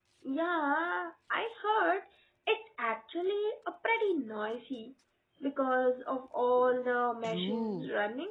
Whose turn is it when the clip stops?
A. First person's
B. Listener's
B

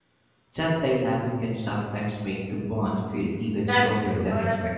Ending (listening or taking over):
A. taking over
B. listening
A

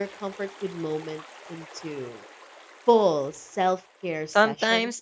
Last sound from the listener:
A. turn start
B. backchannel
A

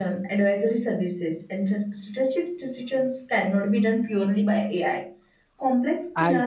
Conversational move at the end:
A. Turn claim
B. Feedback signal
B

